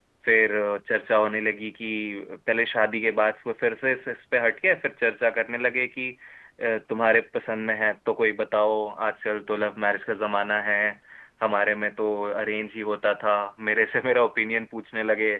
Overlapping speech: No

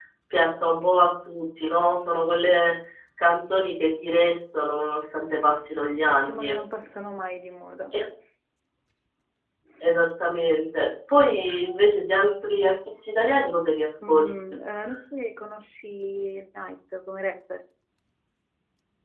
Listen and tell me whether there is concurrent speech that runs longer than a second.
No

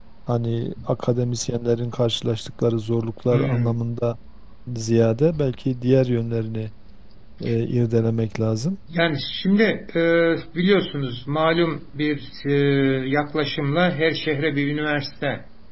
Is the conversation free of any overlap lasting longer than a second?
Yes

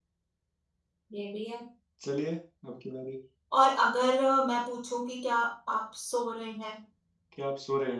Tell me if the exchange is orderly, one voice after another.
Yes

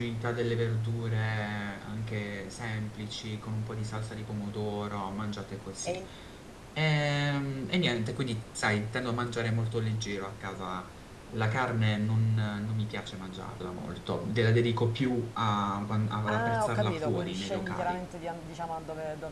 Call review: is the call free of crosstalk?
No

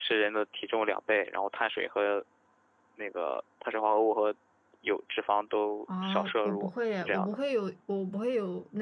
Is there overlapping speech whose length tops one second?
Yes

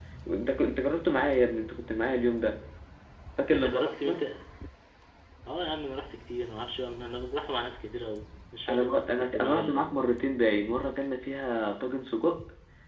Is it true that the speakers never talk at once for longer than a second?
No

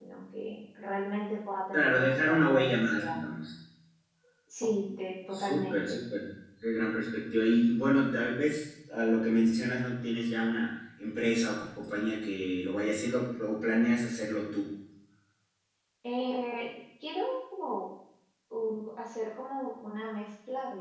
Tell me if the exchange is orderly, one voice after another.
No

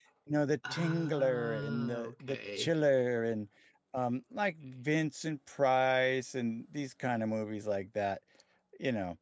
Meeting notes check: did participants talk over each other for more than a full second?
Yes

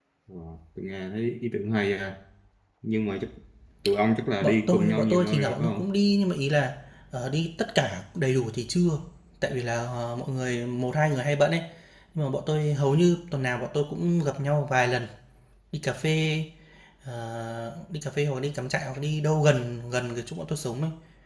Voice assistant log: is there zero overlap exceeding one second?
No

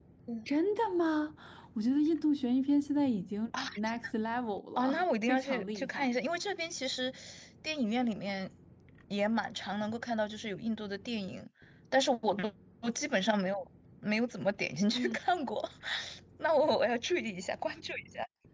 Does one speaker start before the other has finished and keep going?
Yes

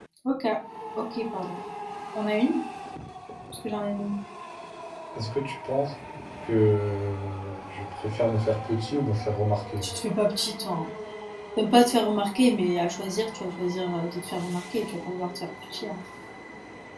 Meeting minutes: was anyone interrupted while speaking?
No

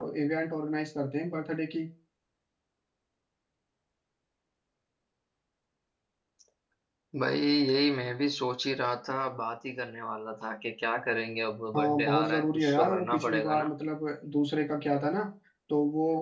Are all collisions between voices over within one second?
No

